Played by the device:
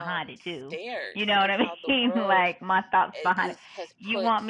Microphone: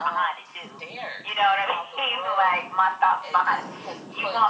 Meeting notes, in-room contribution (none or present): none